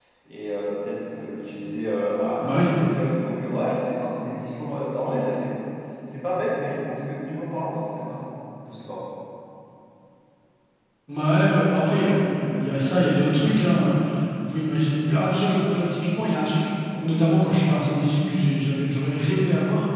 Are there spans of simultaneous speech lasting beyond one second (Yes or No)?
No